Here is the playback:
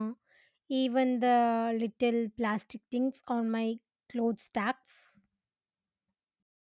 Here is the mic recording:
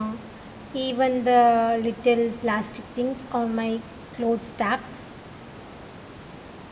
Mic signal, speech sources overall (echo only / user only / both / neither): echo only